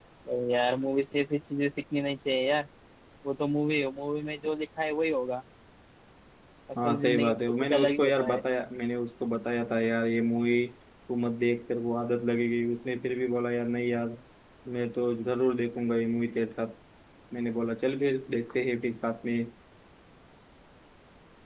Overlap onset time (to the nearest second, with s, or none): 7 s